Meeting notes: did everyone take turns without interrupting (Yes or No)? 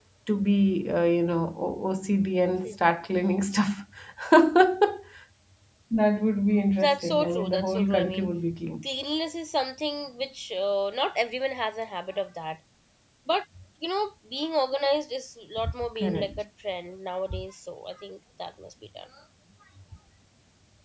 No